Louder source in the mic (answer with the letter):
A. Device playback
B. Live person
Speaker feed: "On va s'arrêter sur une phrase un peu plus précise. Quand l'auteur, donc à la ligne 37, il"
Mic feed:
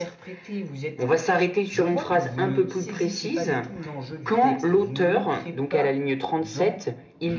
A